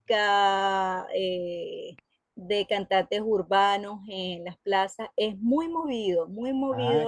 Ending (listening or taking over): taking over